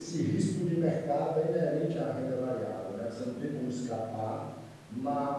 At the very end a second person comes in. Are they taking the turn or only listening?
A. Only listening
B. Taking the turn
A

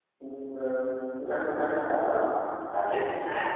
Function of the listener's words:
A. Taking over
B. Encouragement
A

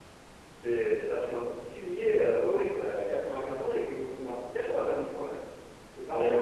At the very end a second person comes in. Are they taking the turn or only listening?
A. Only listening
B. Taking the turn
B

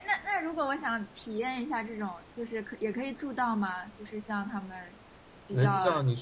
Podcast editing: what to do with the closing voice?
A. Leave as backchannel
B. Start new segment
B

